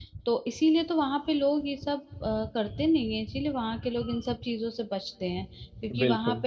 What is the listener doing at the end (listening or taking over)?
listening